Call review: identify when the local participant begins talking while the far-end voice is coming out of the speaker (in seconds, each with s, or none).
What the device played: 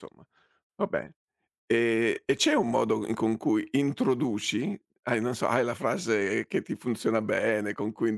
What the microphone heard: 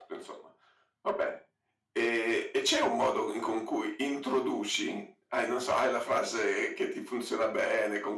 none